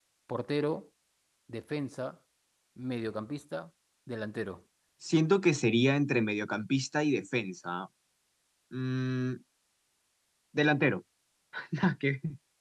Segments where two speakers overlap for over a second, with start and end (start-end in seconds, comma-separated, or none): none